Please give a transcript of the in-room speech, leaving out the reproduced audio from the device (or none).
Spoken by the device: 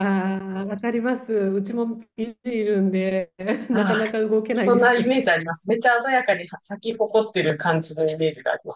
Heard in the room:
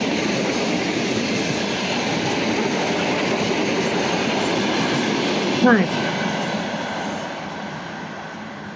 はい。